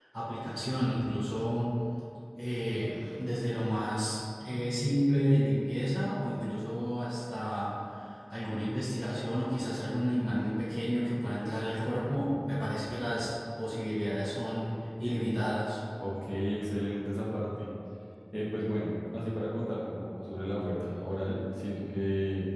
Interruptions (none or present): none